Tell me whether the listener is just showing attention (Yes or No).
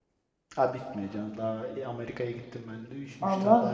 No